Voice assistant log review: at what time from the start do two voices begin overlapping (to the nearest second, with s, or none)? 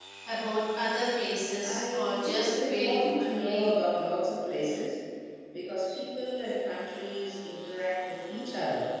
2 s